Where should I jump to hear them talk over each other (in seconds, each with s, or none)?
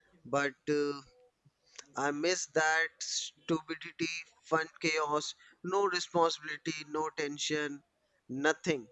none